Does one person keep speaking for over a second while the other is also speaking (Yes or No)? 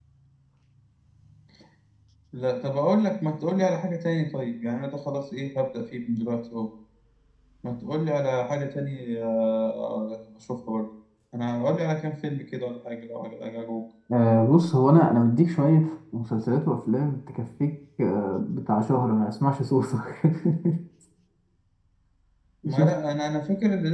No